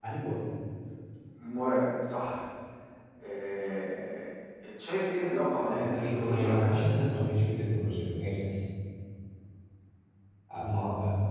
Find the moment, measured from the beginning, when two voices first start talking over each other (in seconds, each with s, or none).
5.6 s